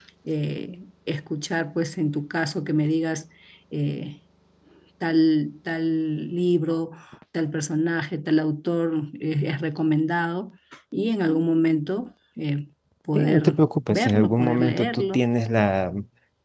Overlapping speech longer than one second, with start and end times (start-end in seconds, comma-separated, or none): 13.1-15.2